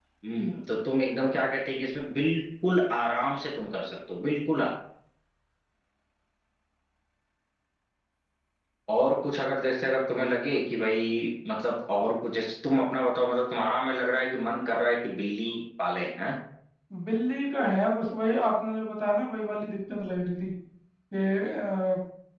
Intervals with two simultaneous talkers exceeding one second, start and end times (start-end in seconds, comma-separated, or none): none